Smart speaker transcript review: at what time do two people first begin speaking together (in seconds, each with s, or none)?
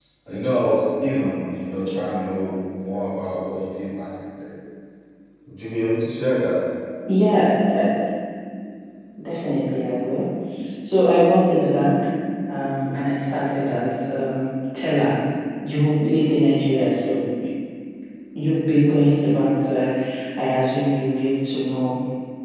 none